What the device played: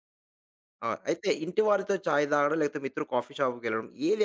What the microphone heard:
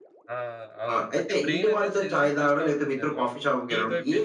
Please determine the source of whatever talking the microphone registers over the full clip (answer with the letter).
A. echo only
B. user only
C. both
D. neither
C